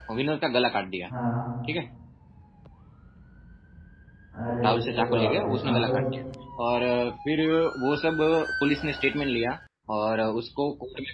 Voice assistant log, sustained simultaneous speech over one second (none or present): present